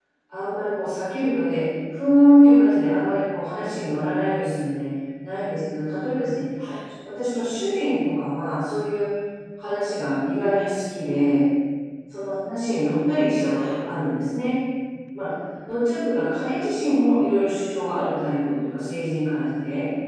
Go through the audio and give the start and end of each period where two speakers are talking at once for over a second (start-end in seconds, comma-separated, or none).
none